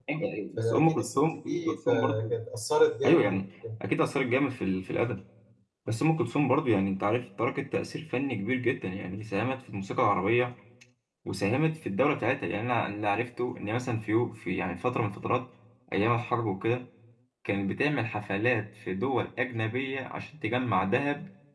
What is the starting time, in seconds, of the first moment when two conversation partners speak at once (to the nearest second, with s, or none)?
1 s